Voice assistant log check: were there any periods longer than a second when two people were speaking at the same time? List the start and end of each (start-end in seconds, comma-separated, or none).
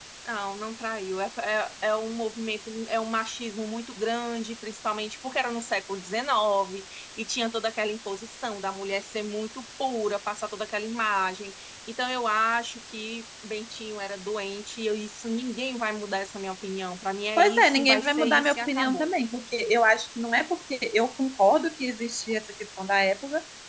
17.4-19.1